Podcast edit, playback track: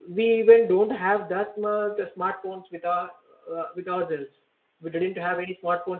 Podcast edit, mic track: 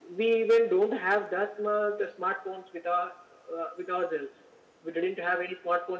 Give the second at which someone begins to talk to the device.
none

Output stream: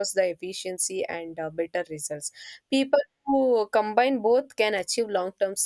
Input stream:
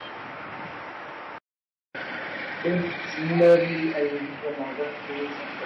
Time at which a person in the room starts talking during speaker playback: 2.6 s

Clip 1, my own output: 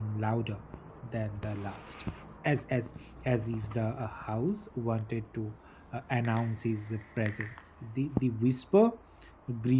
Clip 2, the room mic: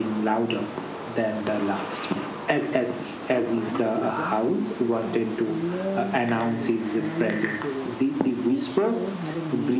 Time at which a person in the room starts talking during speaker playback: 3.3 s

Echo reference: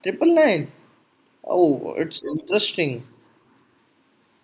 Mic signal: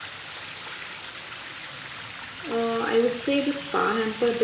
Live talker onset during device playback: 2.5 s

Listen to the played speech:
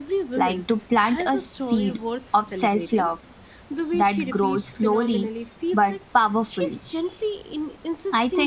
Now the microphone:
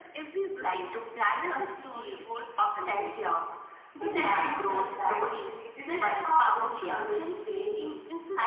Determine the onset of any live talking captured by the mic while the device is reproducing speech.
4.0 s

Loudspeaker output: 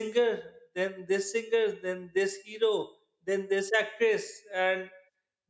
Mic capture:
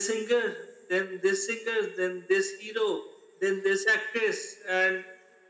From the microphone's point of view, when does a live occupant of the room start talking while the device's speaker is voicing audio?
none

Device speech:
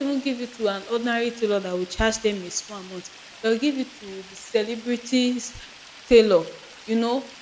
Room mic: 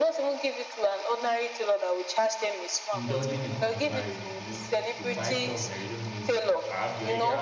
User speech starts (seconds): 2.9 s

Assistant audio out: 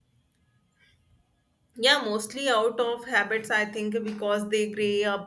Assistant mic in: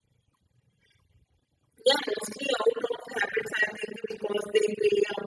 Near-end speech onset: none

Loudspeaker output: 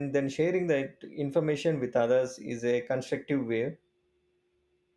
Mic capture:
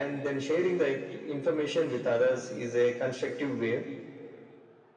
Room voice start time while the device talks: none

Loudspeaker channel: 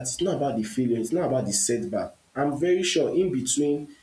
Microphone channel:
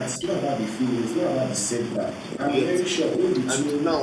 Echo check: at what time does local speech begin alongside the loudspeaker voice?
2.5 s

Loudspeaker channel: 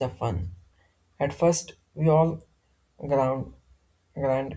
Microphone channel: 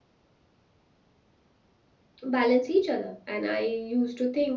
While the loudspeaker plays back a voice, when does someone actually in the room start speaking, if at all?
2.2 s

